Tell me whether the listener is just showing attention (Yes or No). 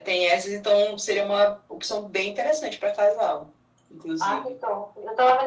No